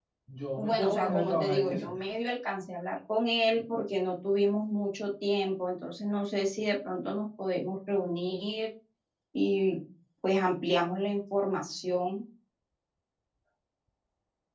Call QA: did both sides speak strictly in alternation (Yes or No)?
No